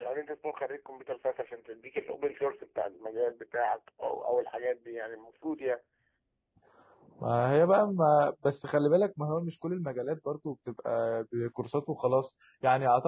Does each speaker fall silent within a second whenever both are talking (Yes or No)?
Yes